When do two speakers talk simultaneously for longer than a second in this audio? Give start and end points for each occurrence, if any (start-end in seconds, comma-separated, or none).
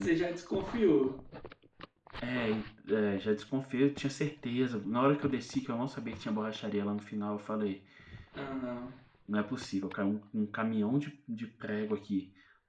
none